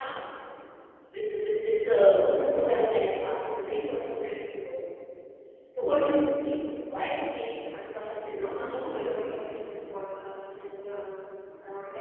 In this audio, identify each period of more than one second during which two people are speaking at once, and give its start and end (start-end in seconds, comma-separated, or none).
8.0-9.5